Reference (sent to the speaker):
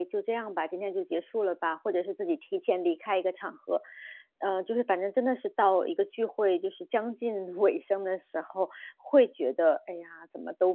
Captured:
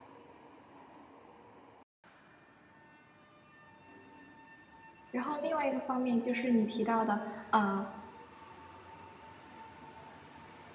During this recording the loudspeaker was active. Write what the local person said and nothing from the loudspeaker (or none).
然后另外一个方面就是你提到的，呃，